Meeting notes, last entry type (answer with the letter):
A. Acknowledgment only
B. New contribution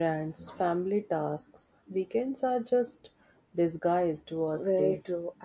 B